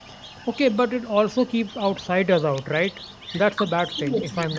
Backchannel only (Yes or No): No